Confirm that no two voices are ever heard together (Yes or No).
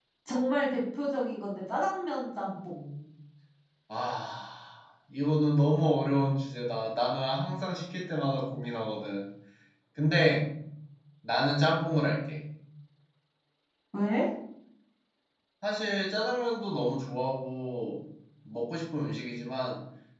Yes